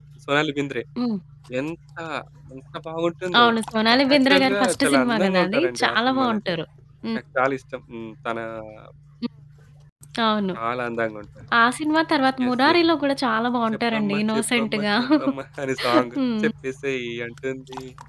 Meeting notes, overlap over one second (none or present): present